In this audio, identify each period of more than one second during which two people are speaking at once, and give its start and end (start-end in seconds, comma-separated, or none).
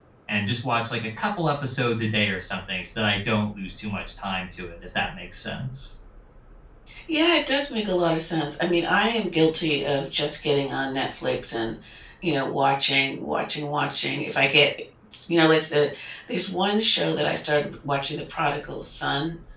none